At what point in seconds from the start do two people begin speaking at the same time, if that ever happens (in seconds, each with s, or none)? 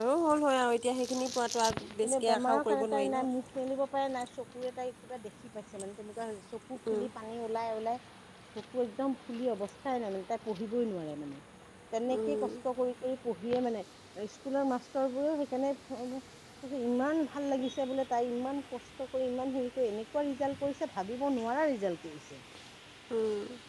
2.0 s